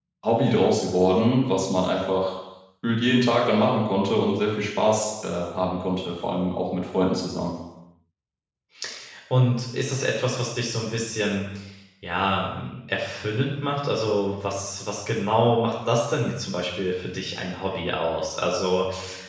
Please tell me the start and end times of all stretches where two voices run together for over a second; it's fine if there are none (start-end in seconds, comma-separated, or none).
none